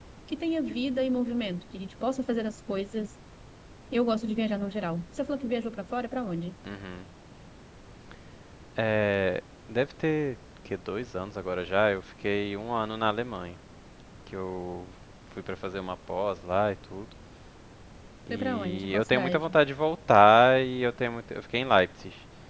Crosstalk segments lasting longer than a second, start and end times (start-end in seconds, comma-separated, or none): 18.3-19.5